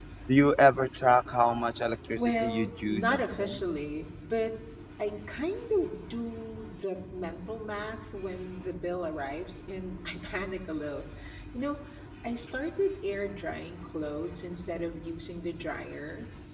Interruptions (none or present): present